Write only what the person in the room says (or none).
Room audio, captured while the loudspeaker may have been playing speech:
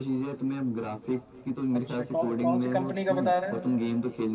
अच्छा कौ, कौन सी कंपनी का बता रहे हैं